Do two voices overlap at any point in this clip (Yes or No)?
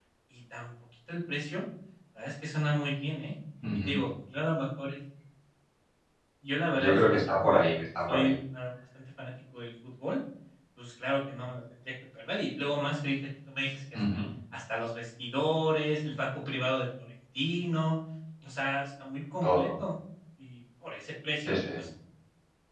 Yes